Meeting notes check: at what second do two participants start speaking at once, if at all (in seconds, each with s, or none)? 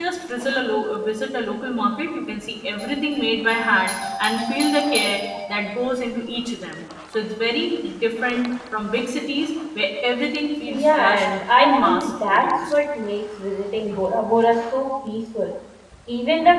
10.6 s